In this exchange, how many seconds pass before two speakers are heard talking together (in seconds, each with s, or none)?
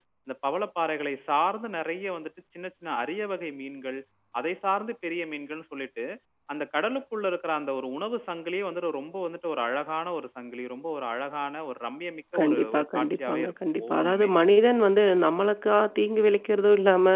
12.3 s